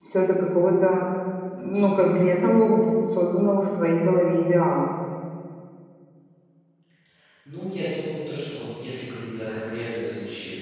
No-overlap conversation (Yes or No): Yes